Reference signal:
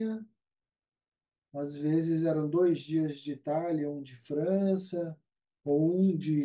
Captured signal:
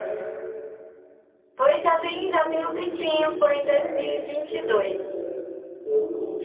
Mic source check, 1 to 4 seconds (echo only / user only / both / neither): both